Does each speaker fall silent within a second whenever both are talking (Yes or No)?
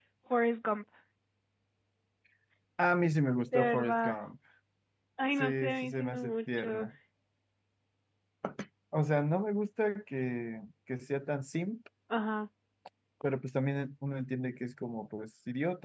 No